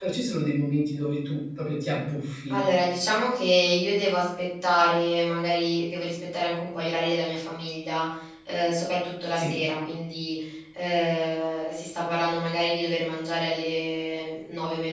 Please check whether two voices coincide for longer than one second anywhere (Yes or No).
No